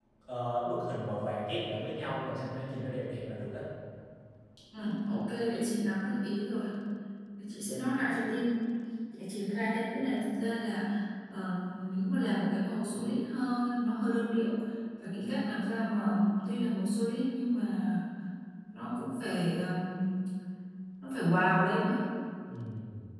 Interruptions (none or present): none